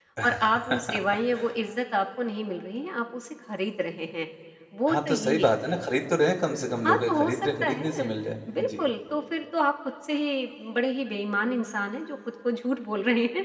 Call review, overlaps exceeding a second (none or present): present